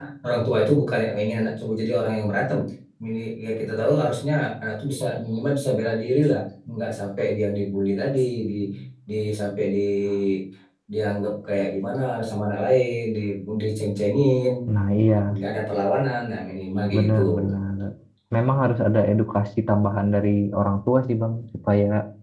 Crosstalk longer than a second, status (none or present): none